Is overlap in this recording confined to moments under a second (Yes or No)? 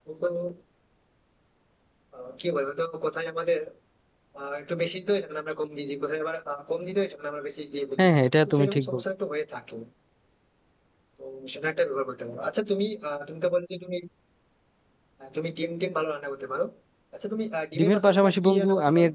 No